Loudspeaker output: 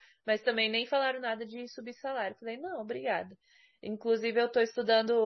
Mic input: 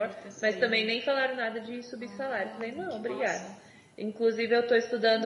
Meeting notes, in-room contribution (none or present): present